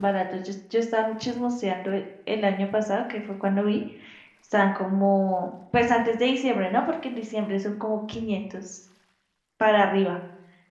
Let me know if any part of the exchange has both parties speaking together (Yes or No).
No